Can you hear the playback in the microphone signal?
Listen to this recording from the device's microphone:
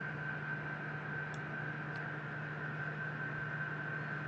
No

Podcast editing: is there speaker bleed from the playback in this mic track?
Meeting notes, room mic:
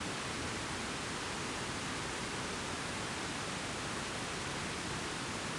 No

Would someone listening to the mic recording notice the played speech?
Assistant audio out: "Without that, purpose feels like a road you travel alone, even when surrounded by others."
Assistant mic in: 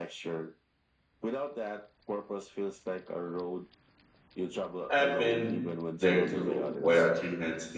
Yes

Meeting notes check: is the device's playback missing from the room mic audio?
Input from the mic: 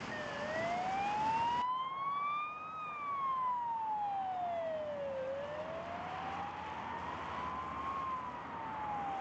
Yes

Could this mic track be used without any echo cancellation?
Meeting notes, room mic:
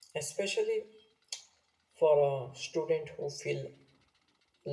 Yes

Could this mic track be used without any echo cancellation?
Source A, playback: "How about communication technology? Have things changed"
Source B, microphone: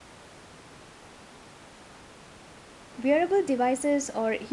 Yes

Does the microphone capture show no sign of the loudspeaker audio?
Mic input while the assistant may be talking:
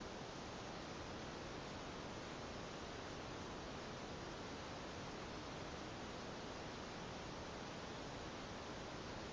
Yes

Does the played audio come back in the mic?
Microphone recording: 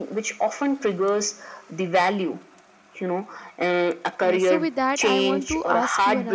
Yes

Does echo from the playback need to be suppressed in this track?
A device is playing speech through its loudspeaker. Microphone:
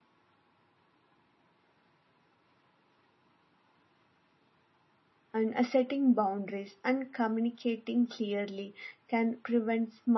No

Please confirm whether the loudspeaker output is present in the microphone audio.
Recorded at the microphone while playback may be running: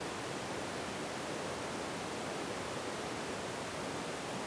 No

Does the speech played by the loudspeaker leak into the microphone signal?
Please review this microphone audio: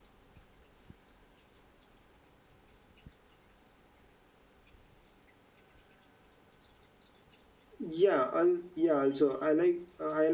No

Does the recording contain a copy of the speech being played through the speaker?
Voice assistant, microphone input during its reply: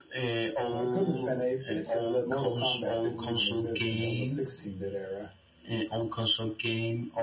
Yes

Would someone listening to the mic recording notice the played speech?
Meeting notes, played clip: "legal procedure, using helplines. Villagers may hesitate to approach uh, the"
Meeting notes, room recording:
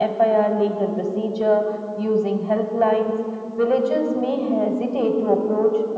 Yes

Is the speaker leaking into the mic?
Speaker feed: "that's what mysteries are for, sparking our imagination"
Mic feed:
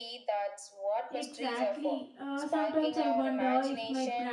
Yes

